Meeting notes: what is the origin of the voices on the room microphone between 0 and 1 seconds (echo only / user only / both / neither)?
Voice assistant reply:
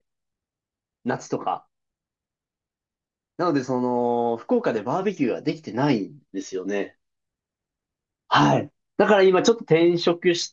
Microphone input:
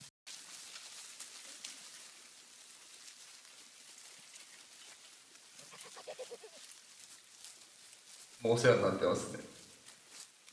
neither